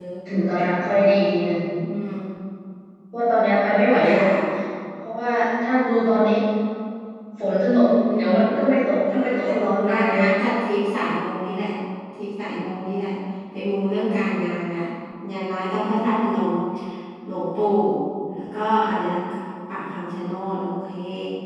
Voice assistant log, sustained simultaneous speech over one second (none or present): present